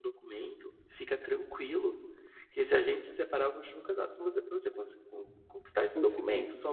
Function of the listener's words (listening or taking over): listening